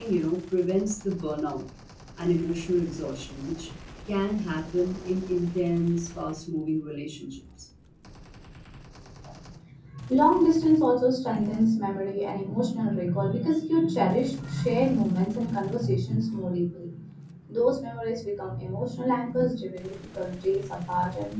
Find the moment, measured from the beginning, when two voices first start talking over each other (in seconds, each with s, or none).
none